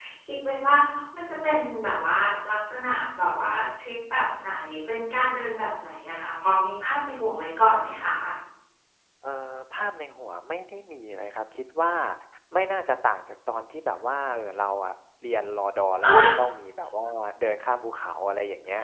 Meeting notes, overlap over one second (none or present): none